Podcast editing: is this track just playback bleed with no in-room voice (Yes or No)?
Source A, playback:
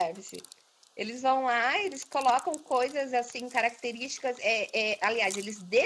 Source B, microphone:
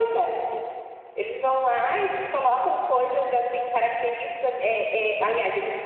Yes